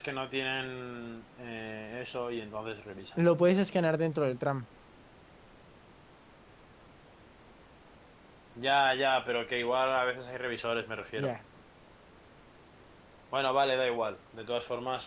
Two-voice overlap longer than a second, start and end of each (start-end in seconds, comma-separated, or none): none